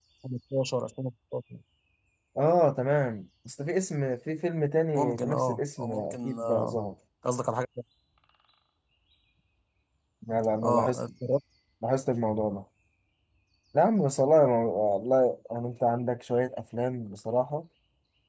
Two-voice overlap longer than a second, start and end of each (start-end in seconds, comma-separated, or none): 4.9-6.8